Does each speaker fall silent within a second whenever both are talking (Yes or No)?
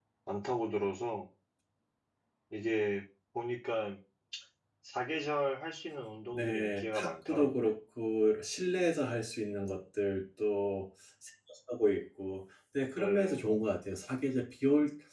No